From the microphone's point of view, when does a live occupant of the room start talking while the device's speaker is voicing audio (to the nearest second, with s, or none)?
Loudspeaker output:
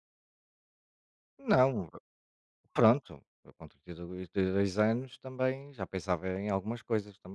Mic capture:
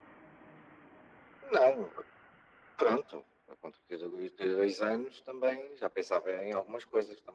none